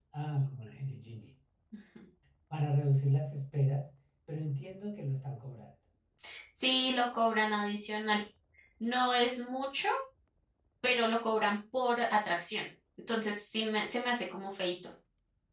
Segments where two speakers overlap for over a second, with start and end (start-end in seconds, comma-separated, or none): none